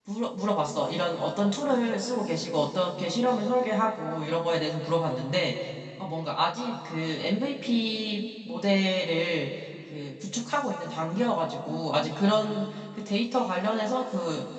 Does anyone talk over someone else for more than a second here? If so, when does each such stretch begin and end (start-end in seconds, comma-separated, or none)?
none